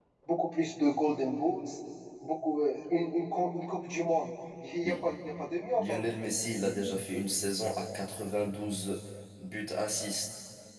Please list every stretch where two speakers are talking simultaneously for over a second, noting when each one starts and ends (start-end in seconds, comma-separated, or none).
none